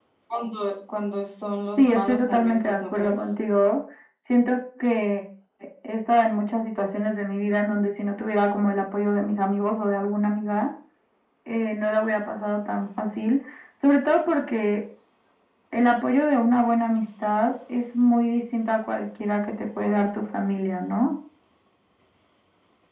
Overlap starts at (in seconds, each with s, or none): 1.8 s